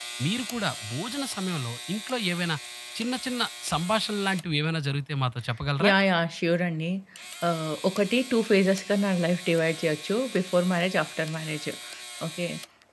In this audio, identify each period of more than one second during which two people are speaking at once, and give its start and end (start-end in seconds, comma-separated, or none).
none